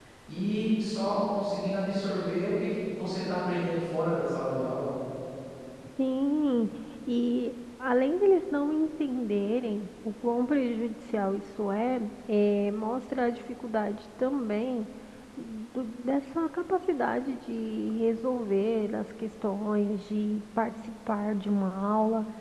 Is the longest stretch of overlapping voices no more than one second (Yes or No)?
Yes